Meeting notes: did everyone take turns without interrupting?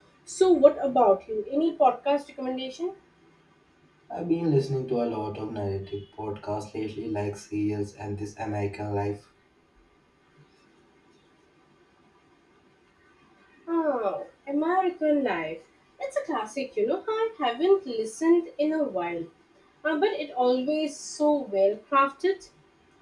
Yes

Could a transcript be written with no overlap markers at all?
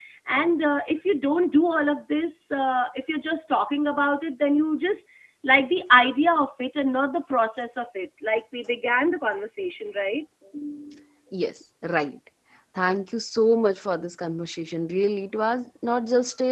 Yes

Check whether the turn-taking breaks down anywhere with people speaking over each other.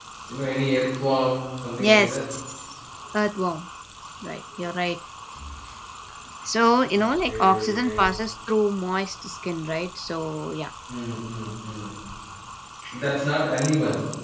Yes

